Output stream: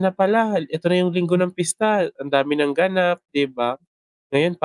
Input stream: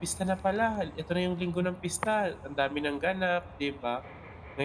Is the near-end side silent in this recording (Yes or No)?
Yes